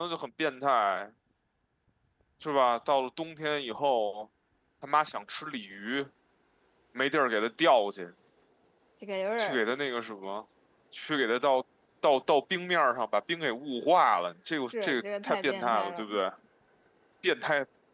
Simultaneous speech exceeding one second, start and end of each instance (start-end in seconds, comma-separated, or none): 14.8-16.1